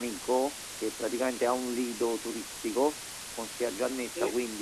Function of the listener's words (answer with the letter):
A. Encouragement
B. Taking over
A